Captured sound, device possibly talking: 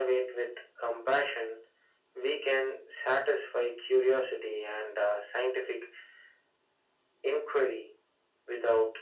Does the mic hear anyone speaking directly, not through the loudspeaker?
No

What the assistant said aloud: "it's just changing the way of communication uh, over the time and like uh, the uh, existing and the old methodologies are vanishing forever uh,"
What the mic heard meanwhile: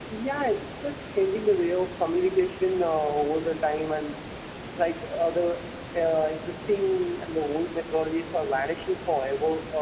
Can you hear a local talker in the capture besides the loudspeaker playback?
No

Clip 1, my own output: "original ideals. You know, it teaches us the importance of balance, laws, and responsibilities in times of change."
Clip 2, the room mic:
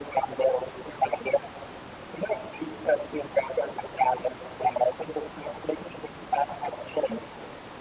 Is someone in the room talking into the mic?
No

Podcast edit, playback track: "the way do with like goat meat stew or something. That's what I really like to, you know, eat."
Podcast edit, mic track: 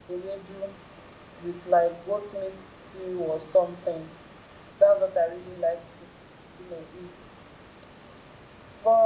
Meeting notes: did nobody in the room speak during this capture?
Yes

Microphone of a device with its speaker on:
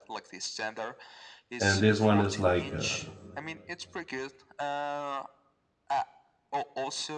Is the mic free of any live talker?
No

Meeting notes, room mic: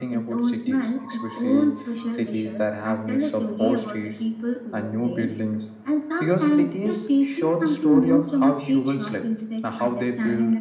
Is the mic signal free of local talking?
Yes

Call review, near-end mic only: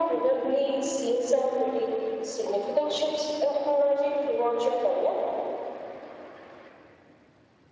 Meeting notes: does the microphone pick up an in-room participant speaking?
No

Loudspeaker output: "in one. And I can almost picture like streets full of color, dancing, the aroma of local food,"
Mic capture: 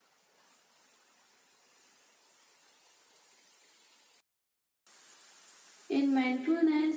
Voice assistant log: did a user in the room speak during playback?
Yes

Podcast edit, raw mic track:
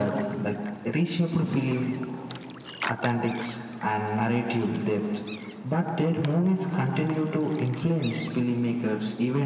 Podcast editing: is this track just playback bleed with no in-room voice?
Yes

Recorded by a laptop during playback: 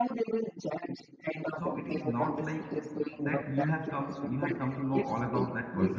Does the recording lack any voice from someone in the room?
No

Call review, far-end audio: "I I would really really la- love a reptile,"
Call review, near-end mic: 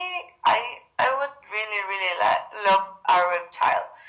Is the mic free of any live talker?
Yes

